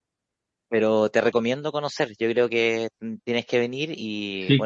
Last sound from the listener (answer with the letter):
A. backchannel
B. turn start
A